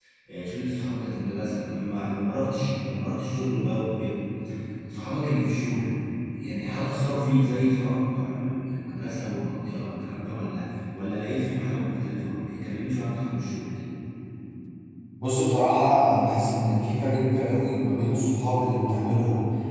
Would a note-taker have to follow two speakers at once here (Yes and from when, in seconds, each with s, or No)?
No